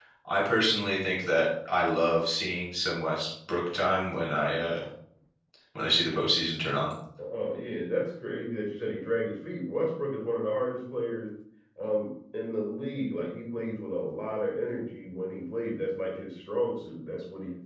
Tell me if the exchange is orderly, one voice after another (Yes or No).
Yes